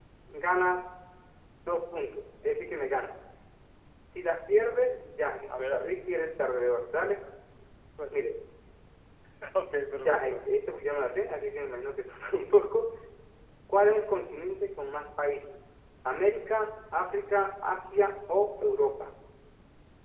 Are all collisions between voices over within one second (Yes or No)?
Yes